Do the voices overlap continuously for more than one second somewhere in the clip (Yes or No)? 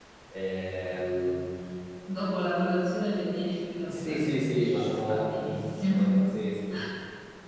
Yes